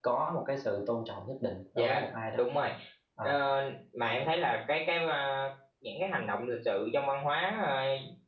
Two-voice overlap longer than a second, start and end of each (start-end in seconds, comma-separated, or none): none